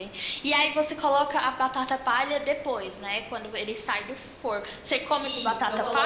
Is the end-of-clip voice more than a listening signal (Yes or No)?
Yes